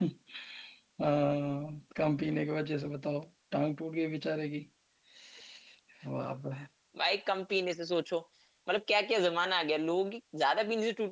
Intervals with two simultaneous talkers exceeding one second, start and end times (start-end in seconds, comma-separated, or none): none